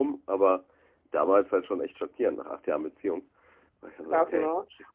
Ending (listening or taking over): taking over